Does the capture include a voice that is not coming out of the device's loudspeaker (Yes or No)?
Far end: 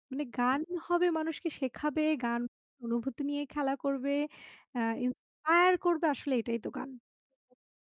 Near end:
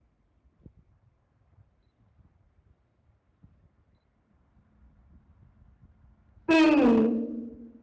Yes